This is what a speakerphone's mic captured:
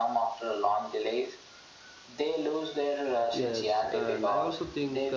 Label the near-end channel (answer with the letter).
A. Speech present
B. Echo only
A